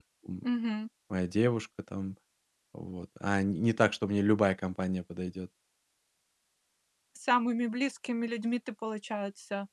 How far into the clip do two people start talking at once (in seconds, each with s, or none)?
none